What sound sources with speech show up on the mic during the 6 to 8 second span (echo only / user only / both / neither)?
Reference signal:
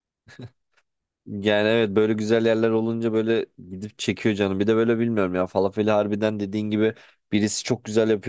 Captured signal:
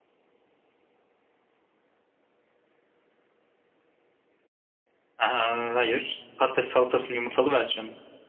user only